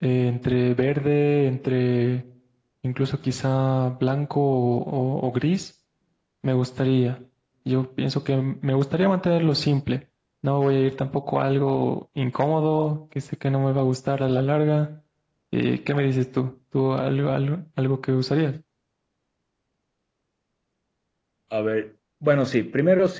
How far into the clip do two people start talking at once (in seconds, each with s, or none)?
none